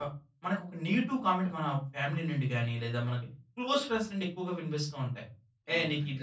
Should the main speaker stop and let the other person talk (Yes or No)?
No